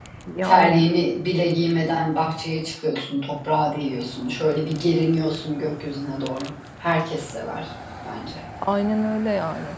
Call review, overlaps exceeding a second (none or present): none